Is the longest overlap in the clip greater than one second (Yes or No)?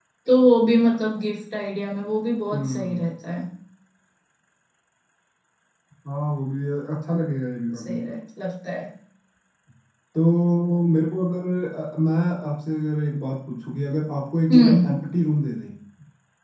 No